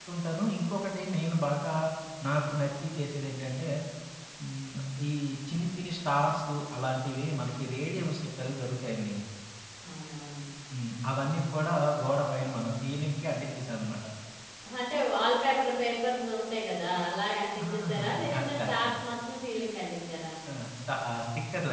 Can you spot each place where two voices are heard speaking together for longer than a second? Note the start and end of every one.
17.7-18.9

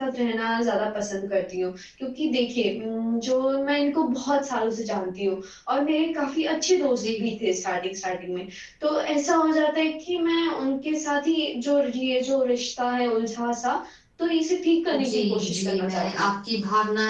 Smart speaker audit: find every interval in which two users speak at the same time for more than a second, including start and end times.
14.9-16.3

